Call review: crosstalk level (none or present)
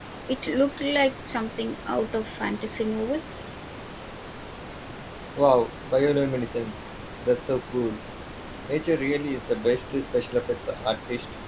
none